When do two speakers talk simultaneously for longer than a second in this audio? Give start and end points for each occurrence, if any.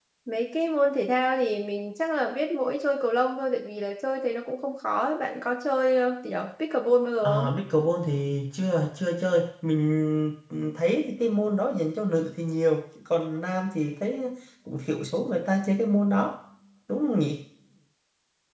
none

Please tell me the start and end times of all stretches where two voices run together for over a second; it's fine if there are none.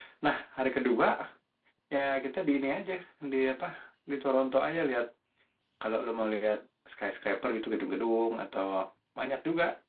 none

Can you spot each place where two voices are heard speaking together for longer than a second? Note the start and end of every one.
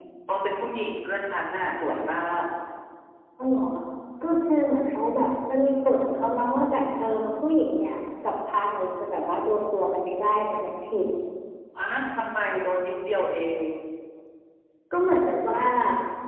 none

